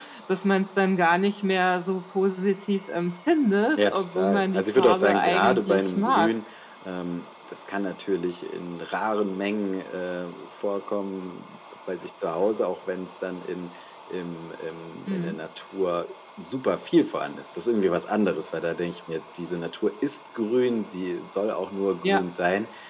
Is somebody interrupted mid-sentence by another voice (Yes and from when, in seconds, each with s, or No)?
Yes, from 3.8 s